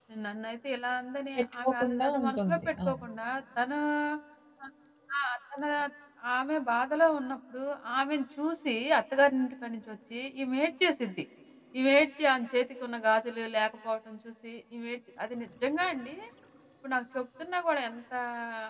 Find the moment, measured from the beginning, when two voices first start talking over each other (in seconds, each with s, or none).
1.4 s